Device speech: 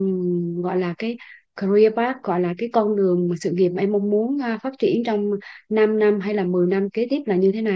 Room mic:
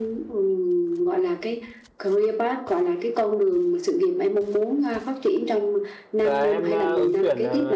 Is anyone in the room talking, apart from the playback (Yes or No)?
Yes